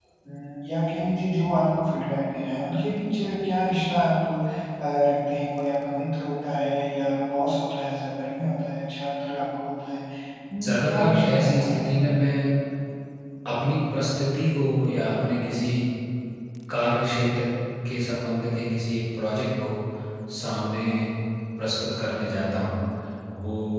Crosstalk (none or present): present